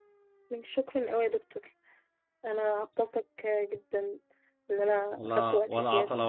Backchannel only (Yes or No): No